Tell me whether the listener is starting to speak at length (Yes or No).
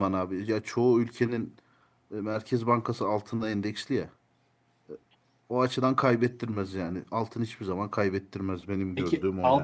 Yes